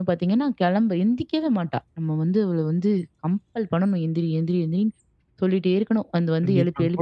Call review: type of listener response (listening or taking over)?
taking over